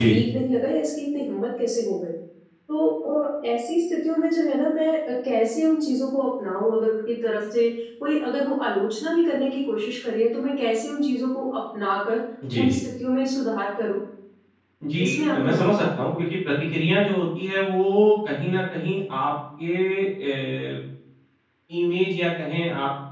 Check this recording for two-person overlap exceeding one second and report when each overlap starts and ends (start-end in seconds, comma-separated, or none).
15.0-16.2